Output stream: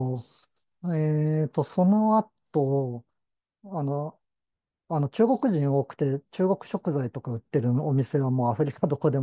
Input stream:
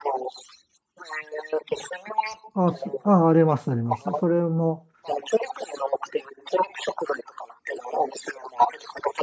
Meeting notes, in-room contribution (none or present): present